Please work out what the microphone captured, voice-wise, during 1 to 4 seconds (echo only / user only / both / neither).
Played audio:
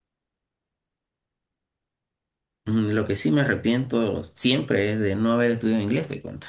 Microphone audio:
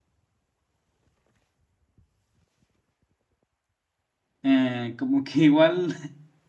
neither